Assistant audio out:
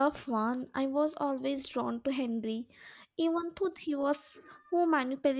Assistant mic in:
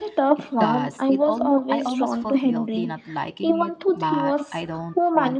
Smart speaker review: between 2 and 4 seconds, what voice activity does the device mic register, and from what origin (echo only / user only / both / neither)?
both